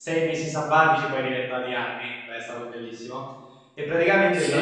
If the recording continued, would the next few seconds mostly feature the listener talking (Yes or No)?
Yes